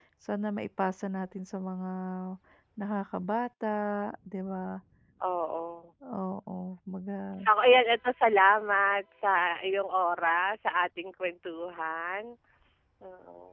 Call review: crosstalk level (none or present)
none